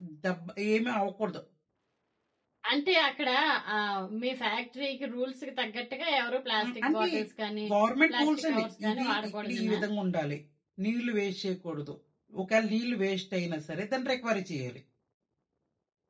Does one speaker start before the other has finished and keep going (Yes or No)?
Yes